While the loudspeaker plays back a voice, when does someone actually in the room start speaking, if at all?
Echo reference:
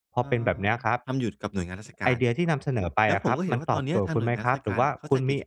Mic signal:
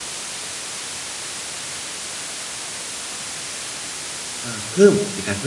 4.4 s

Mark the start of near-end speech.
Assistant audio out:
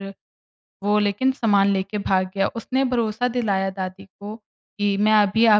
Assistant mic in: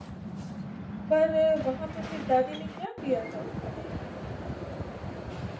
1.1 s

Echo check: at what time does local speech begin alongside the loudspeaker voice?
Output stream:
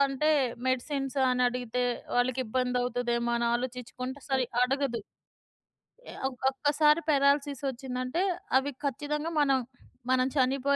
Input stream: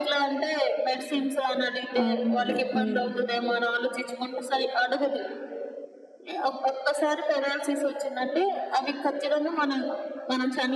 2.0 s

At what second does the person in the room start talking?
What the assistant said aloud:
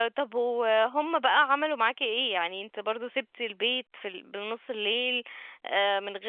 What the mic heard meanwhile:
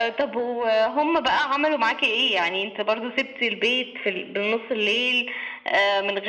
none

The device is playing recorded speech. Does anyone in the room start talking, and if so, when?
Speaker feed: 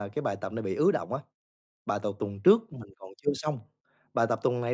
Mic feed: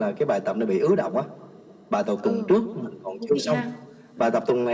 2.1 s

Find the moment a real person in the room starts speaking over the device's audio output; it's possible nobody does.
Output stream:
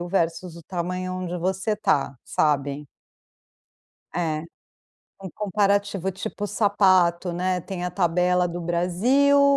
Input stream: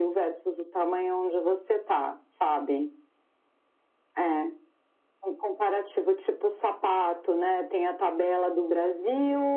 none

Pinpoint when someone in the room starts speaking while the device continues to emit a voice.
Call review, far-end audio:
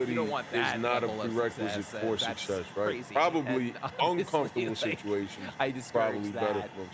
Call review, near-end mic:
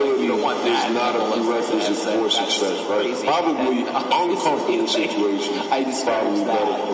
none

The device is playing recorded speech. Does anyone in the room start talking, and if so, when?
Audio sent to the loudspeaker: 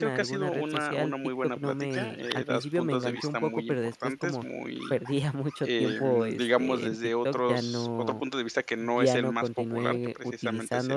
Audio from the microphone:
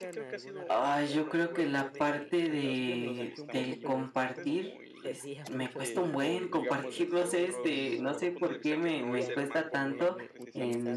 0.7 s

